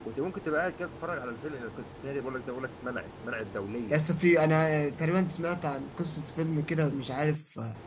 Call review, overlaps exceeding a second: none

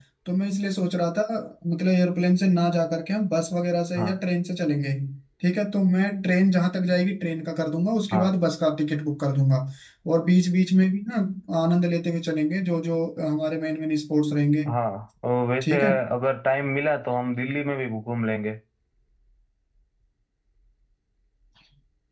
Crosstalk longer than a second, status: none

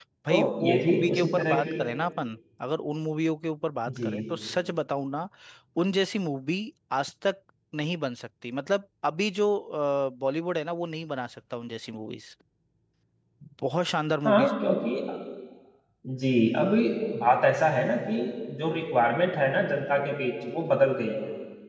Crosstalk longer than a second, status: present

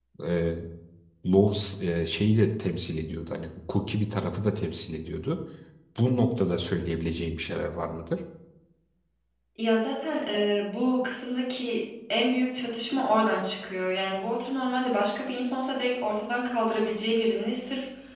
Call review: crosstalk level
none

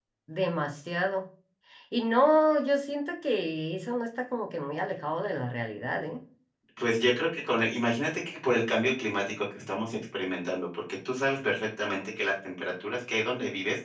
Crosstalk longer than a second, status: none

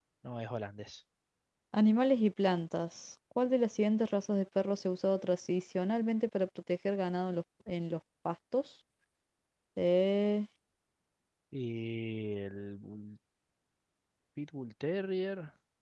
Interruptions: none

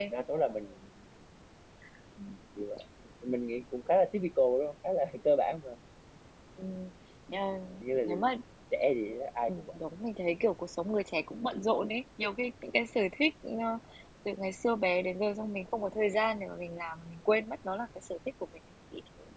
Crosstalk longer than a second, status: none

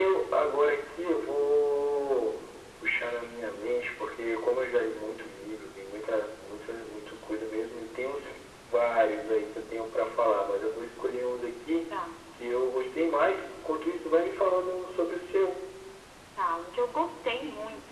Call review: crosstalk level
none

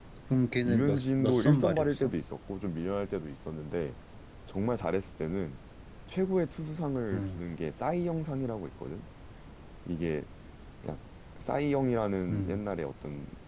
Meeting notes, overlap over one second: present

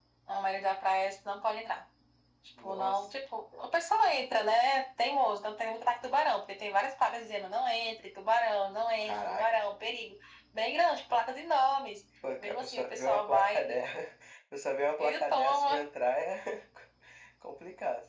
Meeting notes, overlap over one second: present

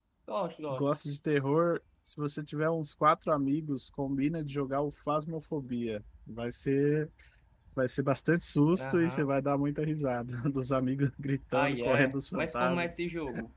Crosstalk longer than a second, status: present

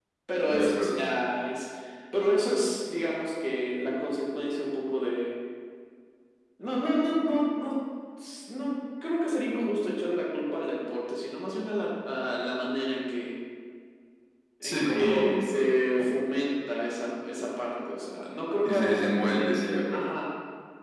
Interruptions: present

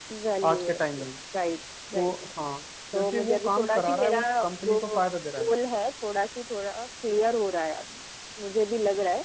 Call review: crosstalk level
present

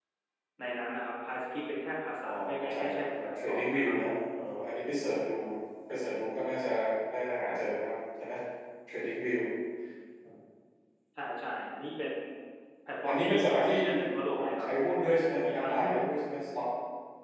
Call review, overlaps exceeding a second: present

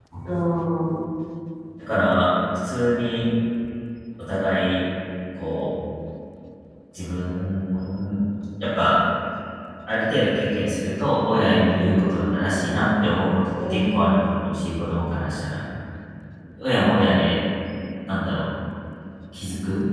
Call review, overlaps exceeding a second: none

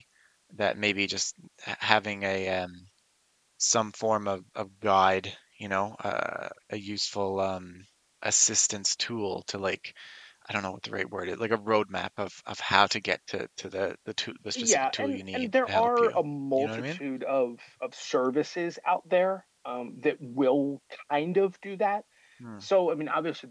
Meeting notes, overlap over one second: present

